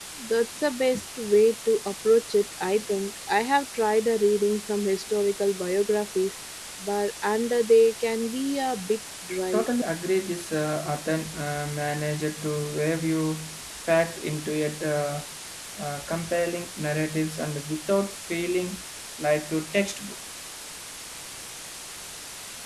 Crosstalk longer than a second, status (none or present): none